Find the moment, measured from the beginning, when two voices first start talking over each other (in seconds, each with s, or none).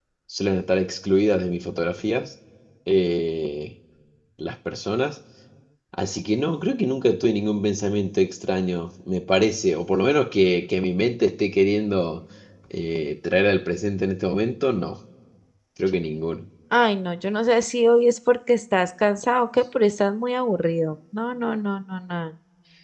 none